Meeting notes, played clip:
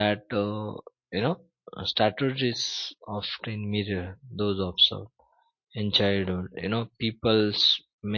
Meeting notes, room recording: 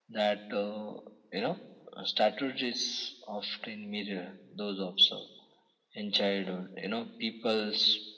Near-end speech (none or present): none